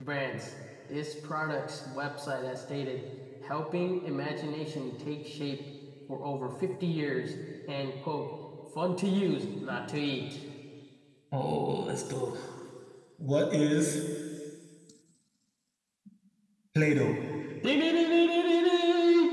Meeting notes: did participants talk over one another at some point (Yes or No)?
No